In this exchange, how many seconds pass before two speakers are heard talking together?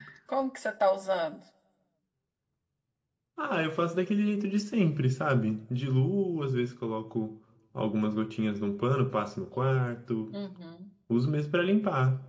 none

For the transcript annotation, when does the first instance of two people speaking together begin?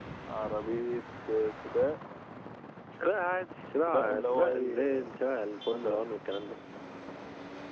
3.9 s

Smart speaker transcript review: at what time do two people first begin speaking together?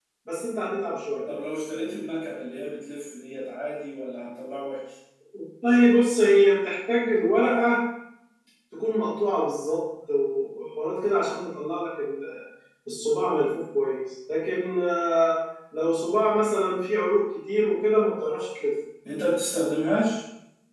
none

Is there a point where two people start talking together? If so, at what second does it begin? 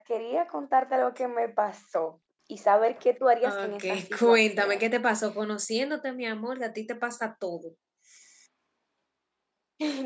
3.4 s

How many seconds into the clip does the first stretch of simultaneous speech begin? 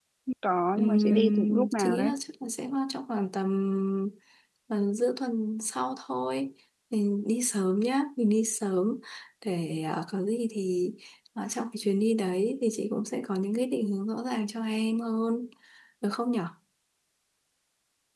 0.8 s

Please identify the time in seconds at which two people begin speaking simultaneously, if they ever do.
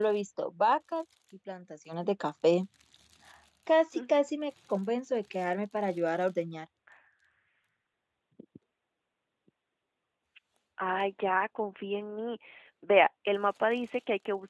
none

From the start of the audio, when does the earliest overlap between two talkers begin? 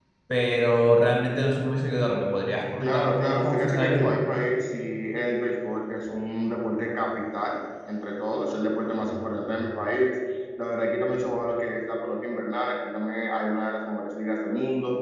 2.8 s

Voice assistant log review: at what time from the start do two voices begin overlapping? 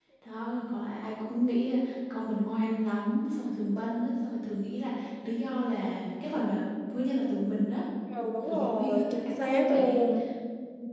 8.4 s

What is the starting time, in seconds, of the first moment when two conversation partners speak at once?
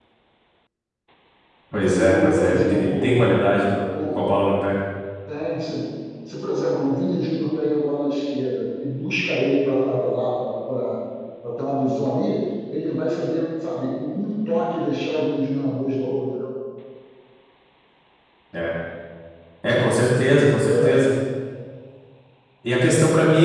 1.9 s

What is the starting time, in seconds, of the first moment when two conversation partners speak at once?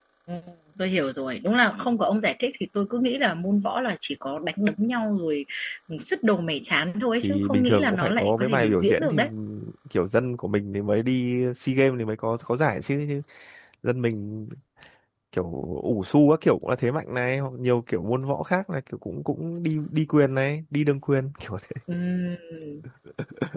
7.2 s

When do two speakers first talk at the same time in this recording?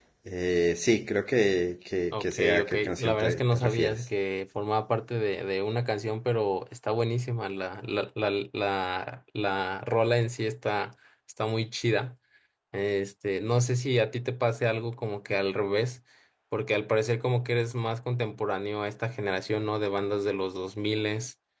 2.1 s

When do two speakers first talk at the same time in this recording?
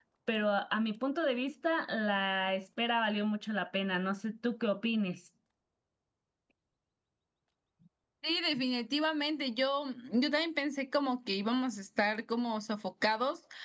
none

